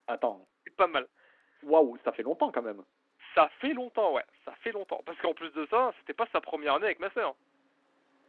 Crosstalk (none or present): none